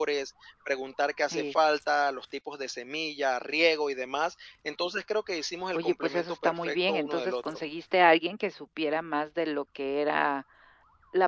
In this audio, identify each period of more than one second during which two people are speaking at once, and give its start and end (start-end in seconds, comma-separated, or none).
5.7-7.6